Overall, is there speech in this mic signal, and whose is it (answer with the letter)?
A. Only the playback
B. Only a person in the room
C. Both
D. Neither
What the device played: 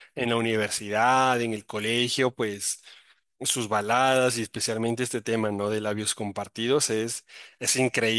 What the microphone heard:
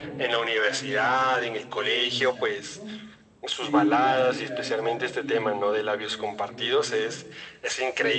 C